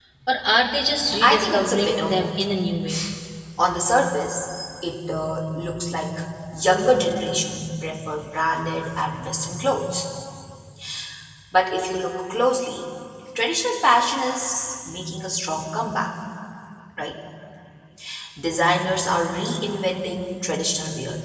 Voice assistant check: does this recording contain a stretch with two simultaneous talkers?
Yes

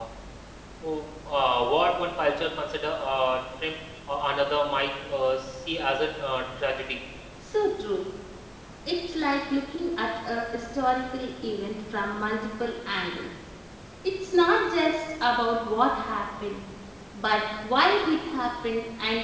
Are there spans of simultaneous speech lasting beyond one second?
No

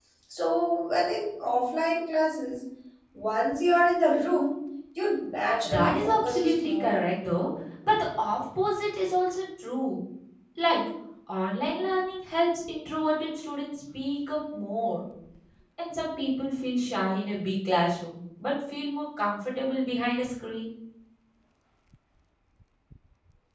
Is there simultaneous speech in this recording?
Yes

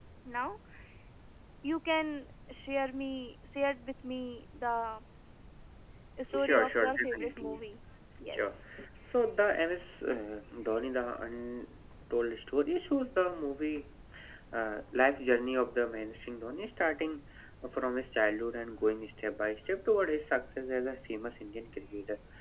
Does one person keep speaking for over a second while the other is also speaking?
Yes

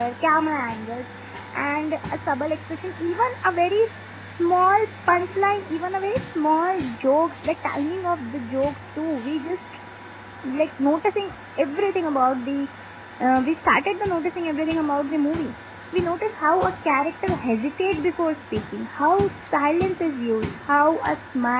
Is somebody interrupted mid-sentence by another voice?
No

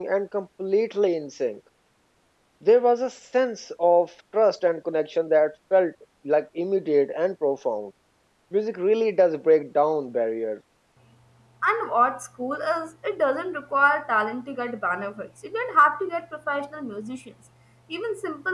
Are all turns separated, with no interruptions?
Yes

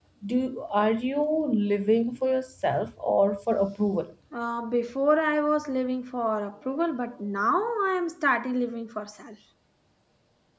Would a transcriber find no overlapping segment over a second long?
Yes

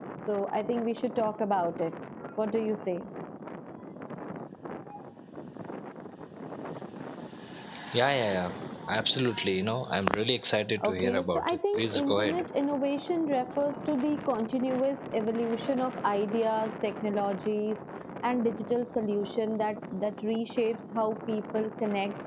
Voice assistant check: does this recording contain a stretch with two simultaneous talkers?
Yes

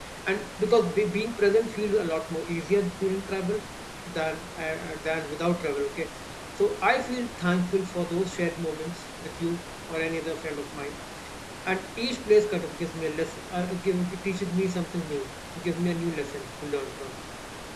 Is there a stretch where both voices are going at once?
No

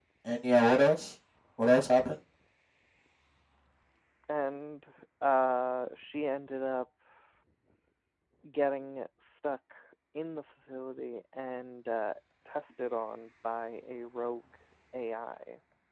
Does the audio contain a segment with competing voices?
No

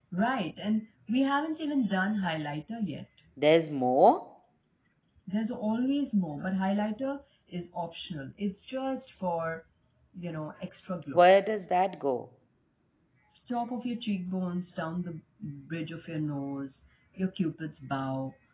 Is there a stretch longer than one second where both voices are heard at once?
No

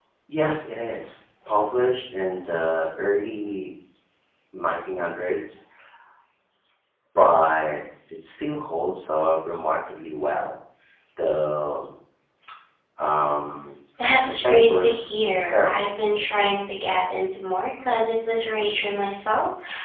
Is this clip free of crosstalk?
No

